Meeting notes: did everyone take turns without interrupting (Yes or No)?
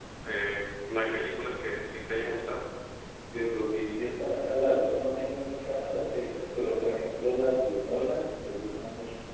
Yes